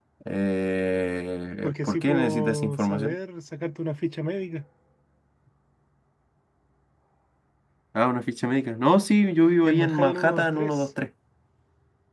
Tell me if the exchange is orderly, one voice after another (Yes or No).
No